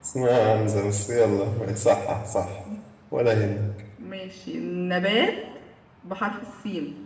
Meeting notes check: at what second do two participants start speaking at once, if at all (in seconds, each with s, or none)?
none